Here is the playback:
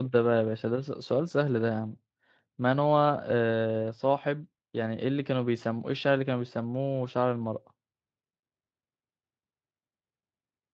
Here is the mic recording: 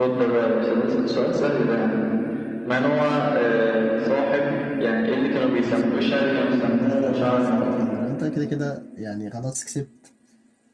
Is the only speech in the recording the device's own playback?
No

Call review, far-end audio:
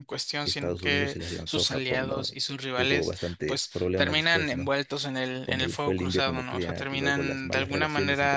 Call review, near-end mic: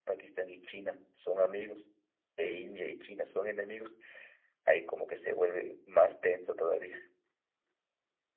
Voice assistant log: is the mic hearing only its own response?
No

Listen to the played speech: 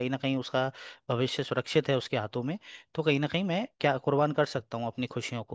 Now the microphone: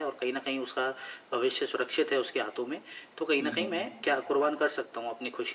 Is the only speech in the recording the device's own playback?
No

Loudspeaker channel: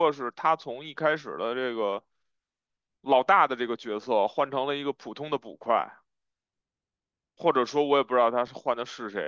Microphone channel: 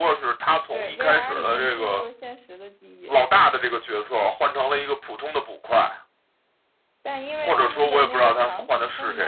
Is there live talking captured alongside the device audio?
Yes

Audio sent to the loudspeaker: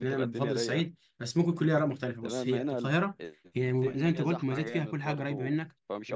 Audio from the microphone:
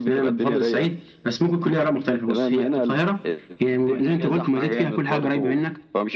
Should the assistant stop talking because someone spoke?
No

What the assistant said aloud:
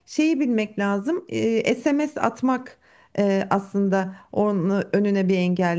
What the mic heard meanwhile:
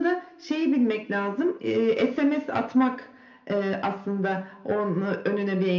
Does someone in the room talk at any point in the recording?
No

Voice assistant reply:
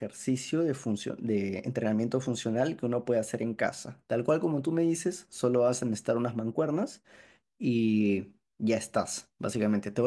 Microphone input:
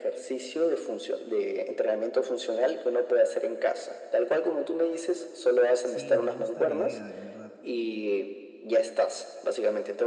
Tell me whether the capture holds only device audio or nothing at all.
No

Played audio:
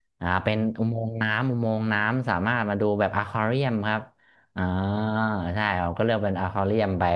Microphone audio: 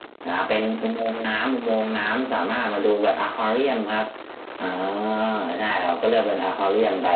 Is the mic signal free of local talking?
Yes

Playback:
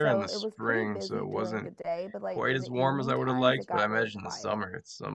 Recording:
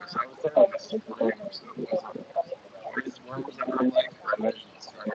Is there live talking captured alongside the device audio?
No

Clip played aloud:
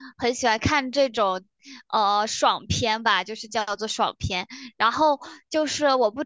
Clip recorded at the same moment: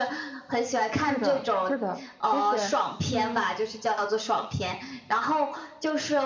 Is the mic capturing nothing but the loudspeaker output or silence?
No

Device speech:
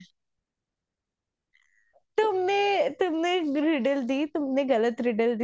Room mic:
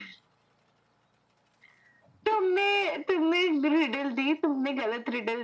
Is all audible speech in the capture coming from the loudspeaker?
Yes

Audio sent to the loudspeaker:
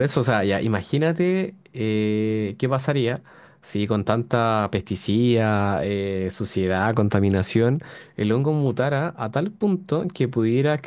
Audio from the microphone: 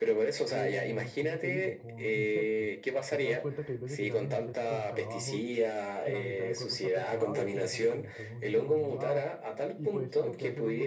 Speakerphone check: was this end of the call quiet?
No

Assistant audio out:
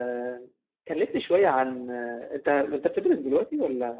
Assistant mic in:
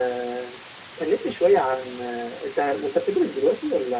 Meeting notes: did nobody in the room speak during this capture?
Yes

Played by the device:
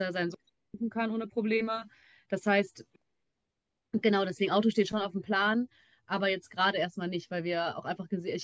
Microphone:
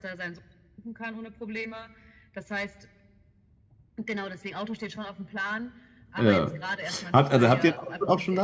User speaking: Yes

